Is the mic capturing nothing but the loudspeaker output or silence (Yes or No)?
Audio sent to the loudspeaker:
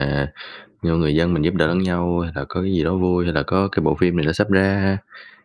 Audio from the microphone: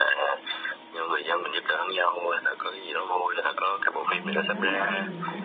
No